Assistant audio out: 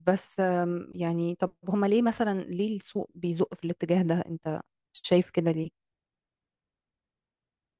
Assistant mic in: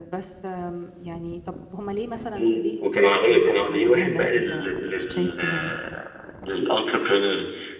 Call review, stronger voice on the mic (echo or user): user